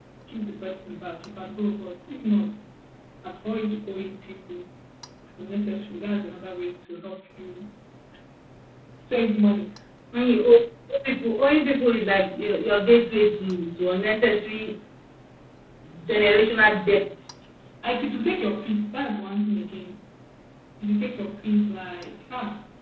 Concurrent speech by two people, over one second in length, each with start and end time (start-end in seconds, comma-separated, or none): none